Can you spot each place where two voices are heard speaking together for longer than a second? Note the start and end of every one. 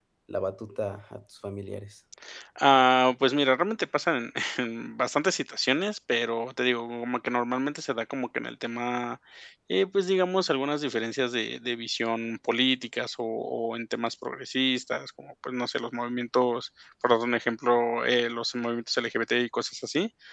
none

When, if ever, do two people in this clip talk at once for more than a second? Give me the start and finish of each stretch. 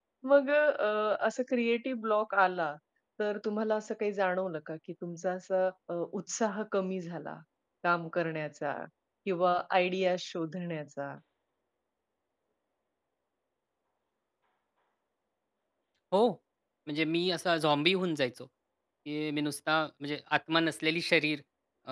none

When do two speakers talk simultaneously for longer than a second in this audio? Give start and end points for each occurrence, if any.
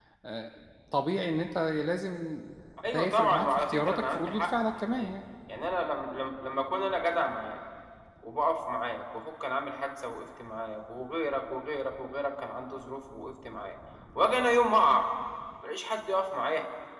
2.9-5.1

